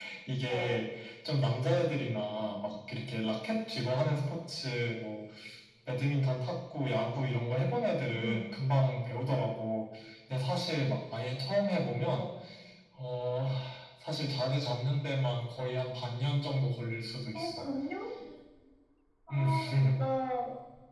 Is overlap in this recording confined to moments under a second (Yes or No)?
Yes